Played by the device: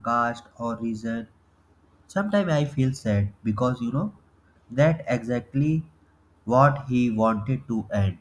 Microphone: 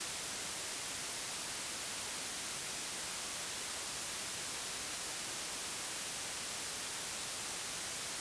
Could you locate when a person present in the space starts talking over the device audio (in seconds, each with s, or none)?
none